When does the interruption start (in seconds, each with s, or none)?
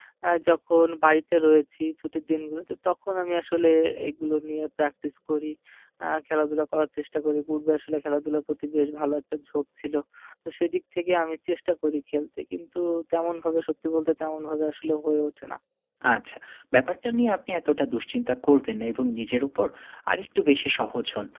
none